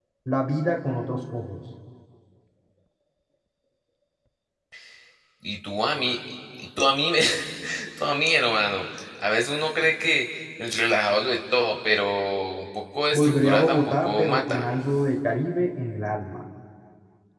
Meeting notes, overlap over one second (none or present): present